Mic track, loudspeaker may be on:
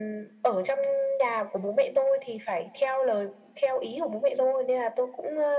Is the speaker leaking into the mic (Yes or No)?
Yes